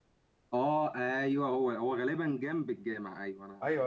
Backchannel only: No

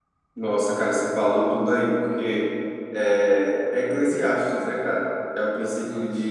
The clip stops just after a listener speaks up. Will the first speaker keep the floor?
Yes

